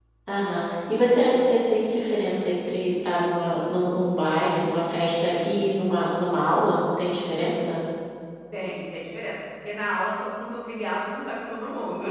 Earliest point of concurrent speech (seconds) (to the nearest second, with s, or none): none